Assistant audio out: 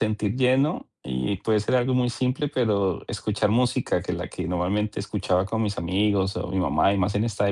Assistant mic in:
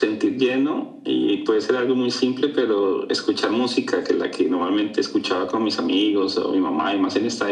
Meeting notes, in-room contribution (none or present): none